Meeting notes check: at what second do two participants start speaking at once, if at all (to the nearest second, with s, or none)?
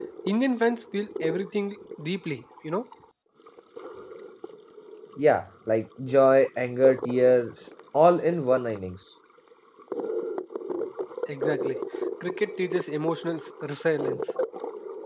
none